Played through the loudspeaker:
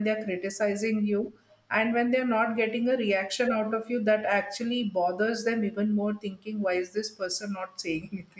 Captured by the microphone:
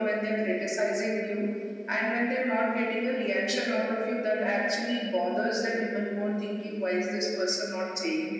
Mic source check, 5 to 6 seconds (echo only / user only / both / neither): echo only